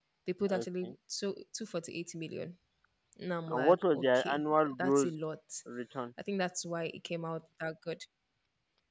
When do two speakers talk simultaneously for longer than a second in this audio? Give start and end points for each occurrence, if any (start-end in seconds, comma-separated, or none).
3.5-5.1